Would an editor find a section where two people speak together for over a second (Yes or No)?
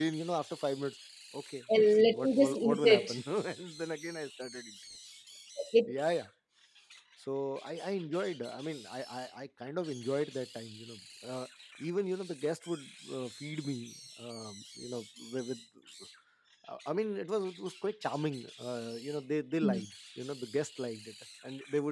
Yes